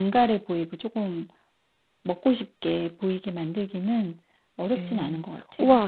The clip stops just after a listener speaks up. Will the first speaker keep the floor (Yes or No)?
No